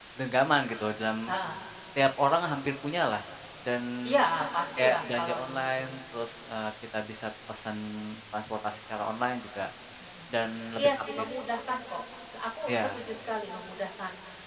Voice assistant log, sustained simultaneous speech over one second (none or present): present